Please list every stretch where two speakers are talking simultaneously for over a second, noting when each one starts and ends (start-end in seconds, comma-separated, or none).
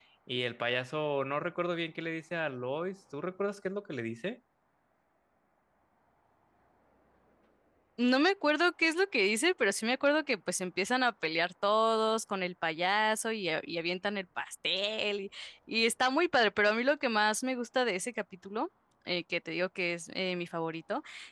none